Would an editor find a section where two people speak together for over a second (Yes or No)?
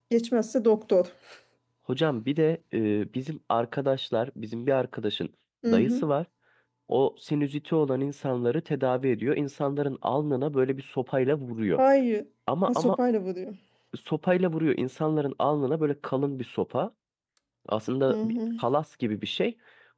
No